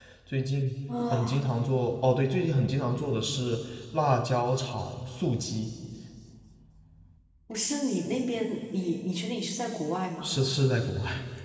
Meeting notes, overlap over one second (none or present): none